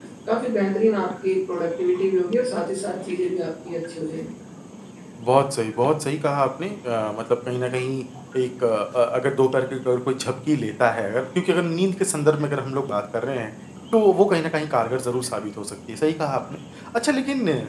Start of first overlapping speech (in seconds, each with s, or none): none